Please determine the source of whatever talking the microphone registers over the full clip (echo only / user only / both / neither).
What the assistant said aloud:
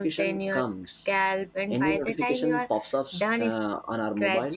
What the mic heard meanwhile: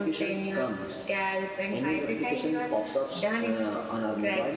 echo only